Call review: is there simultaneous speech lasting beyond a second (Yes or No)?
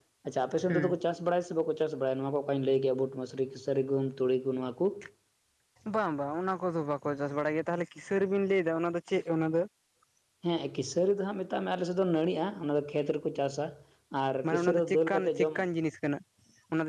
Yes